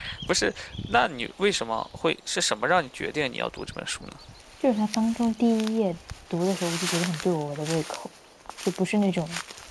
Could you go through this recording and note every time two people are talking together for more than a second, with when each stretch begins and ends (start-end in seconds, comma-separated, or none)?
none